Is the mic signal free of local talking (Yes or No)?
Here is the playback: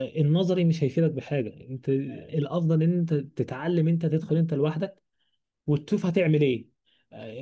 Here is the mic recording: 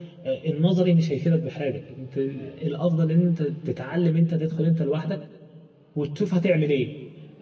Yes